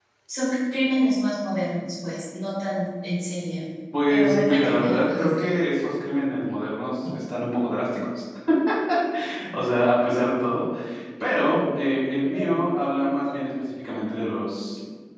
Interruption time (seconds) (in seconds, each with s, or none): 4.1 s